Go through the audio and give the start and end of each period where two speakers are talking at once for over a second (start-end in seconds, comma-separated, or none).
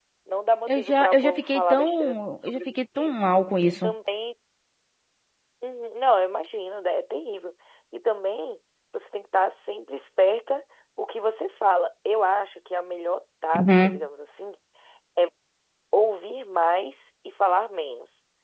0.7-3.1